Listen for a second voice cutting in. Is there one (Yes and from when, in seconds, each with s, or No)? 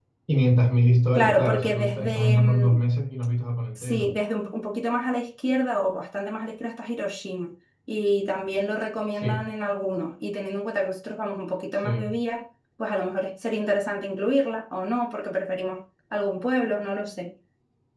Yes, from 1.1 s